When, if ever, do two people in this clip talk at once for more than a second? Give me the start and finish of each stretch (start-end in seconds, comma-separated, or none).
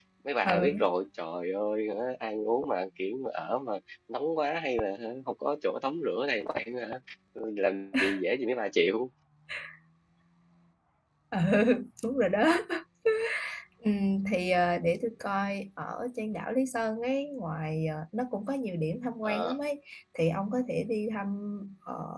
none